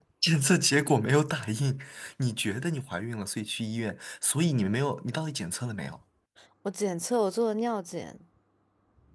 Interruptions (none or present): none